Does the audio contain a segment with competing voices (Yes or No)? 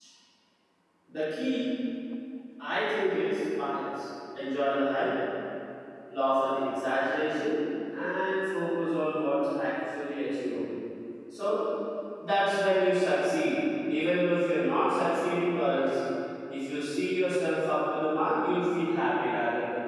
No